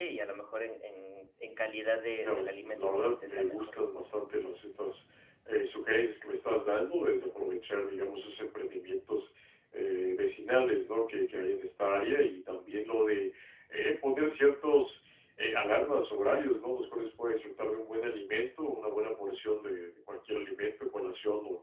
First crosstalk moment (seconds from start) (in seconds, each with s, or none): 2.2 s